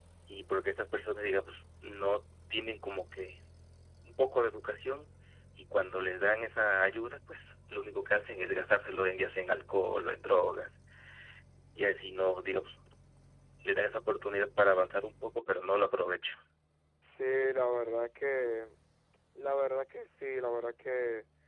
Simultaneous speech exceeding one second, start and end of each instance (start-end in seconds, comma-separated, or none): none